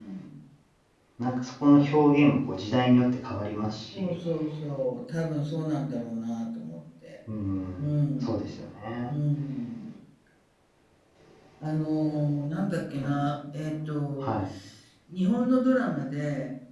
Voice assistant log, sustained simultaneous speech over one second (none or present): none